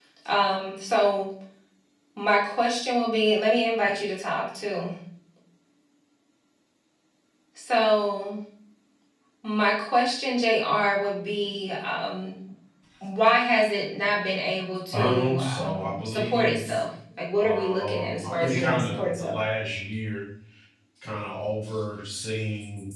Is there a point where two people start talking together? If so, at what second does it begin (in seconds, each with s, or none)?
14.9 s